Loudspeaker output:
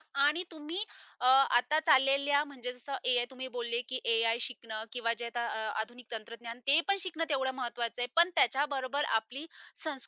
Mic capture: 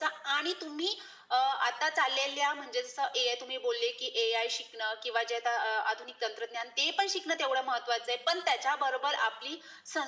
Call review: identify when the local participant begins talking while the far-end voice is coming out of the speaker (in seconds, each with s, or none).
none